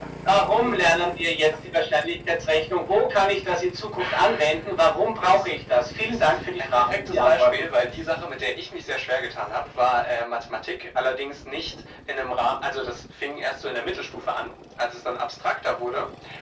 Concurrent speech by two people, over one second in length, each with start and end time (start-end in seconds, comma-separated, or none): 6.0-7.7